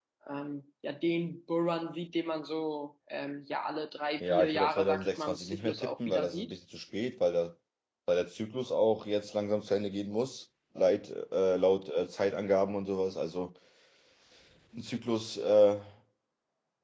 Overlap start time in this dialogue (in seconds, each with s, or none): 4.2 s